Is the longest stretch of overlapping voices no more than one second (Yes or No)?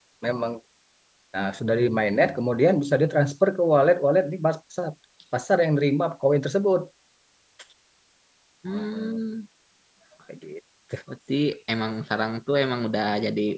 Yes